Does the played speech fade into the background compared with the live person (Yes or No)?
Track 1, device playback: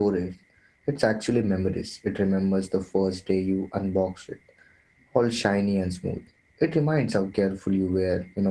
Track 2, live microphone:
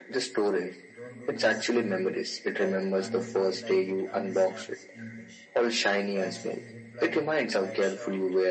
No